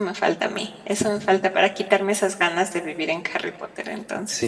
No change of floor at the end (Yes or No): No